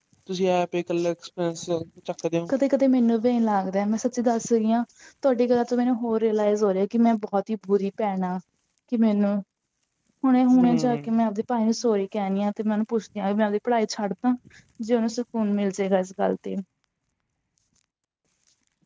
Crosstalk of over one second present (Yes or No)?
No